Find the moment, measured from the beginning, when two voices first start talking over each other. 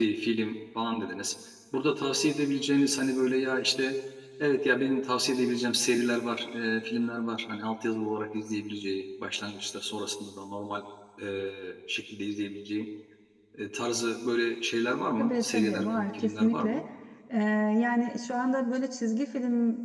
15.2 s

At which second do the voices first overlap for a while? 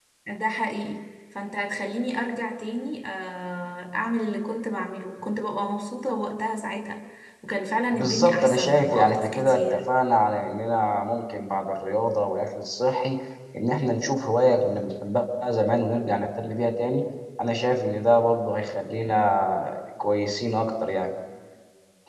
7.9 s

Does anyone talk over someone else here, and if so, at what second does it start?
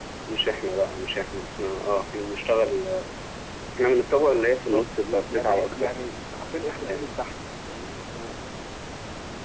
4.5 s

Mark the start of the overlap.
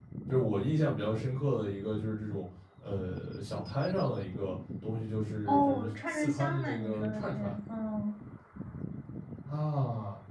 5.5 s

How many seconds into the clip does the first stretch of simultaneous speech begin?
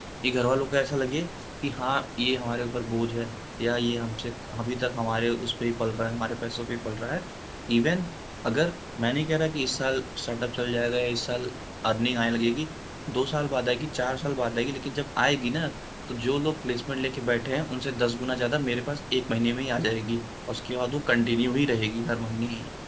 none

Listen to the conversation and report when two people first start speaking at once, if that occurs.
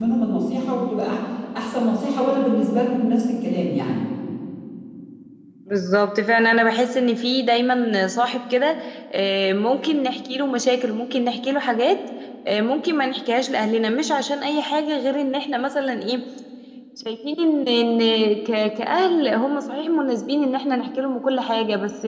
none

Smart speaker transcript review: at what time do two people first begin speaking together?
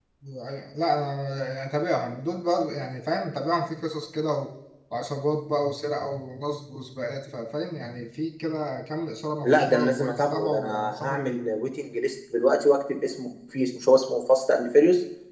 9.4 s

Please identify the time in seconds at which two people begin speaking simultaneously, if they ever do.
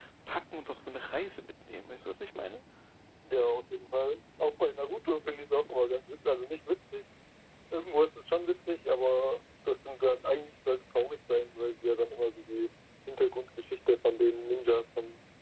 none

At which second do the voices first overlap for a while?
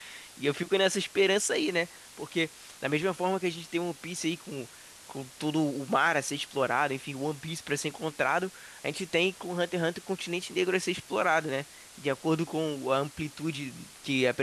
none

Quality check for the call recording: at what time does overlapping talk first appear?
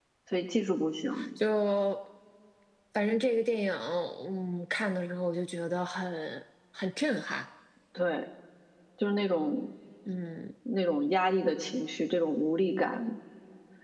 none

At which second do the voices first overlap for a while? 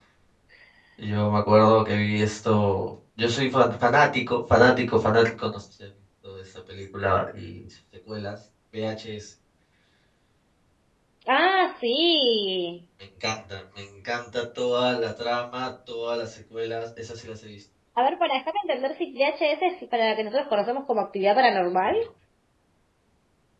none

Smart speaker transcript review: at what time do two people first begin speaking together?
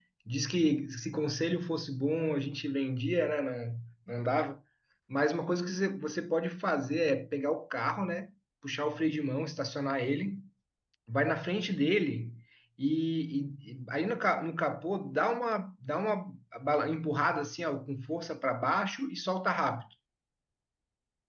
none

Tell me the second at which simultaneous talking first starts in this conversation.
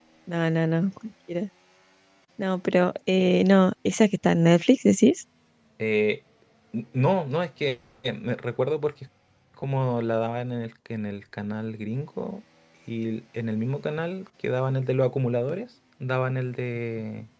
none

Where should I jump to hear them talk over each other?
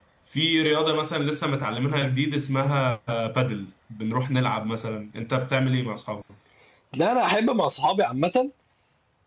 none

